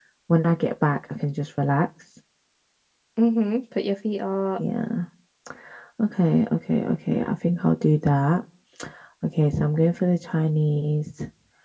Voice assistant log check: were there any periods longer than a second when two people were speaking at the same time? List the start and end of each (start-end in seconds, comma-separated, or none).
none